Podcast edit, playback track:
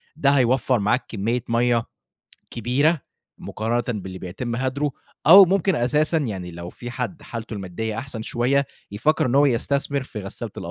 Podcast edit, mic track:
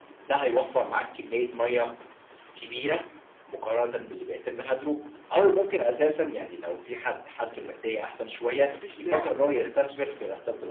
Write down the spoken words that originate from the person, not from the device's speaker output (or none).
ما فيش داعي إن الحنفية تكون ش